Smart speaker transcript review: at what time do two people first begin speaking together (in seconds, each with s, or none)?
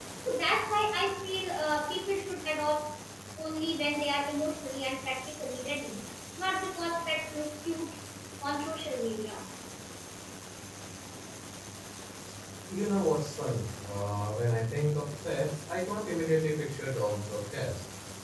none